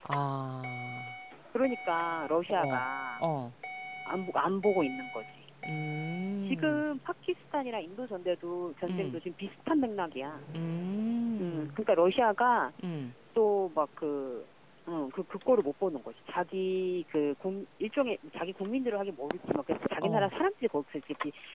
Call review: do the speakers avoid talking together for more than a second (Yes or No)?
Yes